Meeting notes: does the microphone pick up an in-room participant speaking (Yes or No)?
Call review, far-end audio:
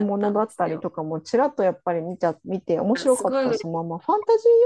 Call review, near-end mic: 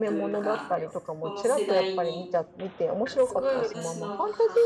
Yes